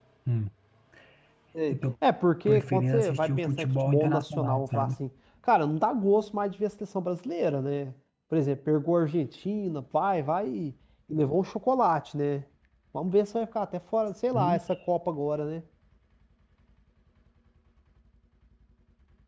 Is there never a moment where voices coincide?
No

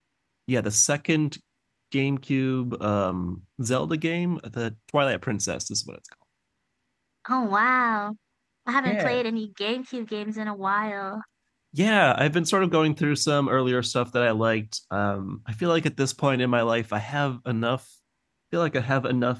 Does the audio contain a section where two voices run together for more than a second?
No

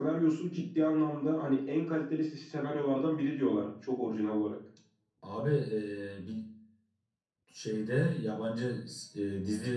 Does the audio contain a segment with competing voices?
No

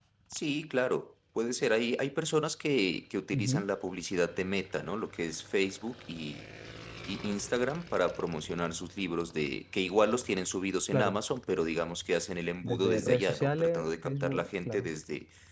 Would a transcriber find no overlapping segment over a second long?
No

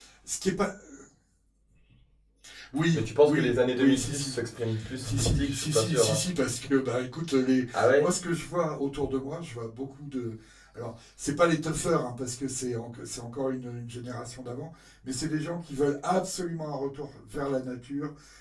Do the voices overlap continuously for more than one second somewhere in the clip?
Yes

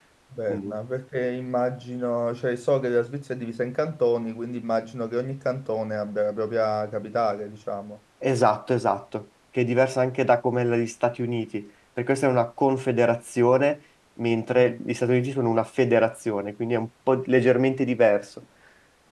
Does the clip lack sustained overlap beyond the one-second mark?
Yes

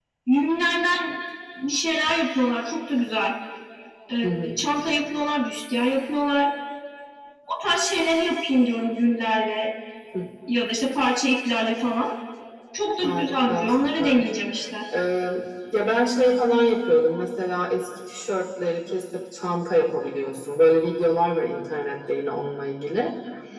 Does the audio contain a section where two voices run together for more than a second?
Yes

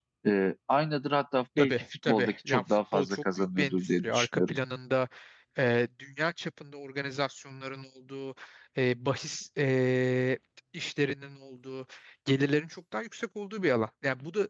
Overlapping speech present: Yes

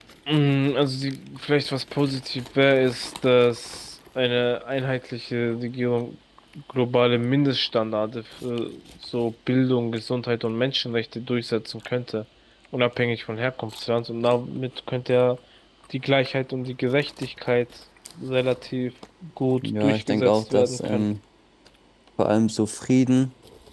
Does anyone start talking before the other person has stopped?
Yes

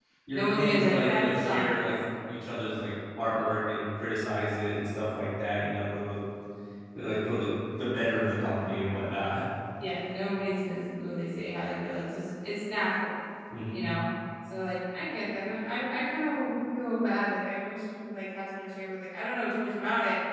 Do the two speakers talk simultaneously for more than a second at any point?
Yes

